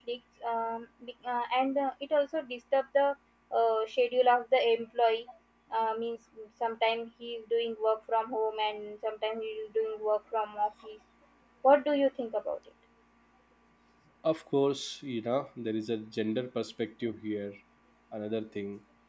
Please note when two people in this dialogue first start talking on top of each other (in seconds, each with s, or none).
none